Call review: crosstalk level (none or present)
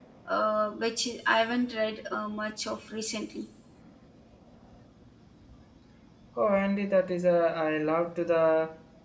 none